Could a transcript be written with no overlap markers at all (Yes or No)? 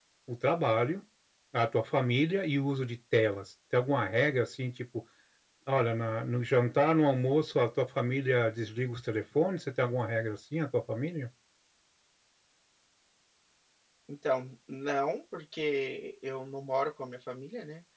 Yes